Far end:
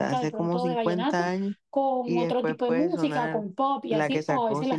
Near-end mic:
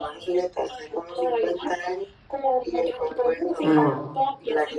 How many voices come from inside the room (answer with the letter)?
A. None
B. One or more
B